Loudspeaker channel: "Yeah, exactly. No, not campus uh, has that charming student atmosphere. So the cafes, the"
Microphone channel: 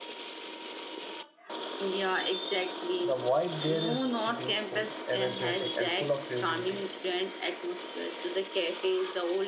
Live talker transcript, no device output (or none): The vibe there is youthful, energetic, and full of creativity.